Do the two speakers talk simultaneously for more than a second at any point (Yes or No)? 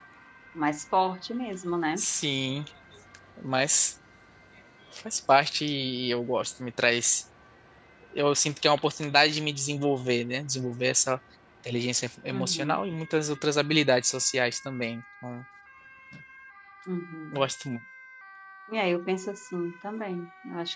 No